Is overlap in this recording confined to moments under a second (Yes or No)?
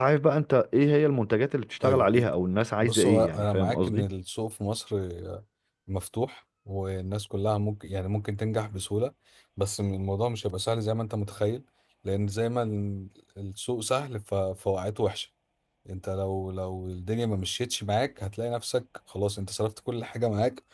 No